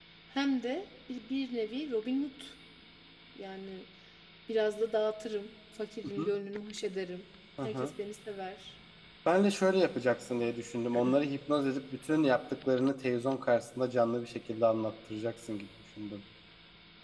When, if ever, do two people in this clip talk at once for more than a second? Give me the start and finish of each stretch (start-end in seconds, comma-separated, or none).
none